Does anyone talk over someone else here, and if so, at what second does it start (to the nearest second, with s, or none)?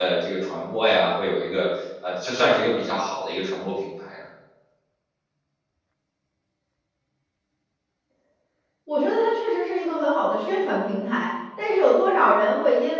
none